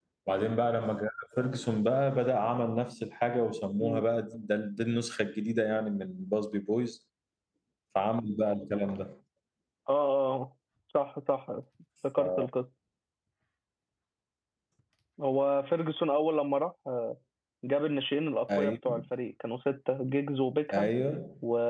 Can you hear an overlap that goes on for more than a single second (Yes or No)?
No